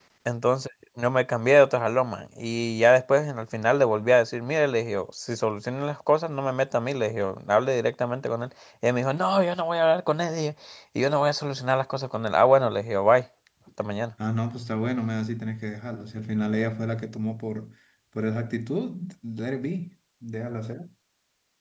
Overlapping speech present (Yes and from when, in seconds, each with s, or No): No